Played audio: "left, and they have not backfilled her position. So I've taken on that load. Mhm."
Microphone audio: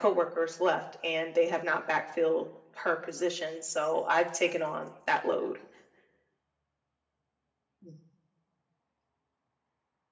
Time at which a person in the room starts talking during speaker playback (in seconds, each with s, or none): none